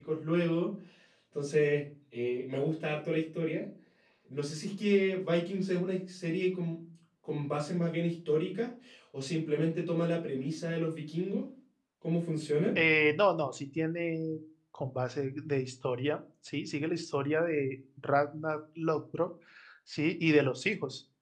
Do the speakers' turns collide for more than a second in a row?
No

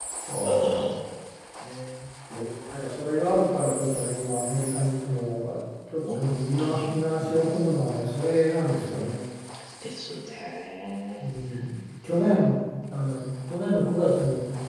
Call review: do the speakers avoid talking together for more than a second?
No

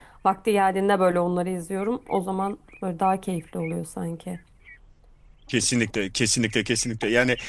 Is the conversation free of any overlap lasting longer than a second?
Yes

